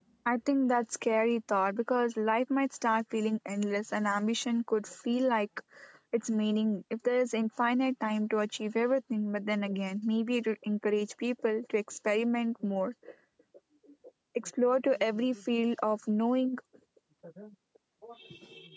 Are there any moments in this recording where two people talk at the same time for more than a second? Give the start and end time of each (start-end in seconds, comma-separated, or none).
none